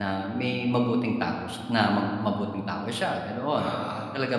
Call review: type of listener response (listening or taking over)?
listening